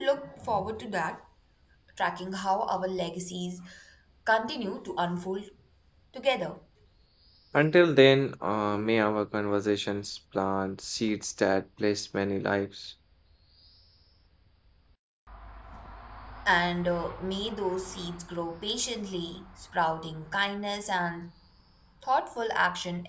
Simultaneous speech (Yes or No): No